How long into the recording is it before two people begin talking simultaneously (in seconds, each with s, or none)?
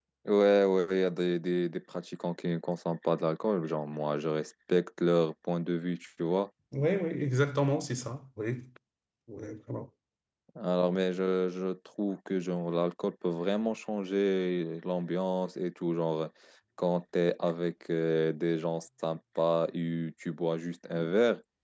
none